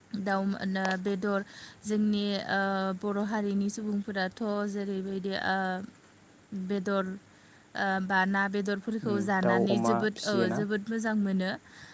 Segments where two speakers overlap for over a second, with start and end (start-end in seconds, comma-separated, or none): 9.1-10.6